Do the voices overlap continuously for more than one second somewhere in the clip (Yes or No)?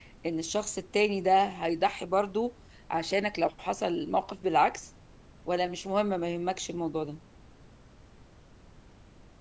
No